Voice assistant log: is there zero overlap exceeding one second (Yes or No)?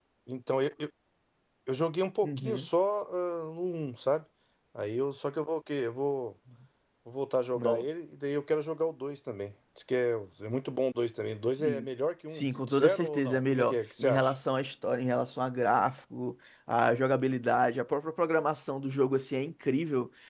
No